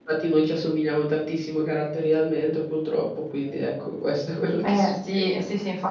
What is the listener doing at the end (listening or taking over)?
taking over